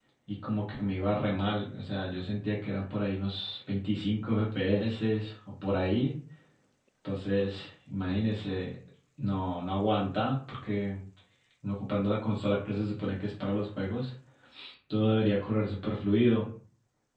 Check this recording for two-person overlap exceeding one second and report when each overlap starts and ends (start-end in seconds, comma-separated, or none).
none